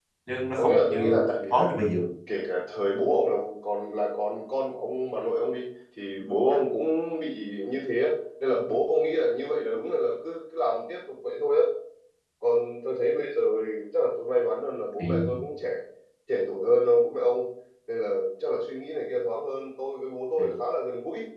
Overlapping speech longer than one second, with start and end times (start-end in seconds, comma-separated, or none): 0.6-1.8